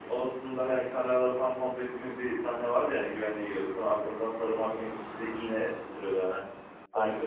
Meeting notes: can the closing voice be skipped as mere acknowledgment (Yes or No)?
Yes